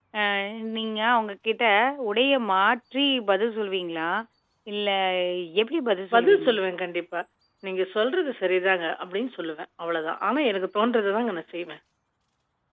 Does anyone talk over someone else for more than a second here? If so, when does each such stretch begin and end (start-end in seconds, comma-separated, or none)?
none